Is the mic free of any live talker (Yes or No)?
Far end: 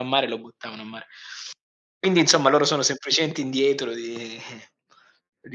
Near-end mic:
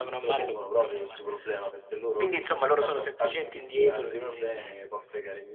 No